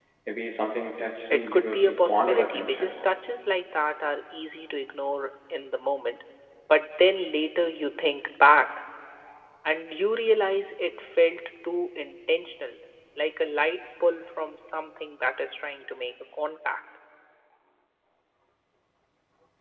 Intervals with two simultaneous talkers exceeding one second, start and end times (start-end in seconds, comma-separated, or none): 1.3-2.9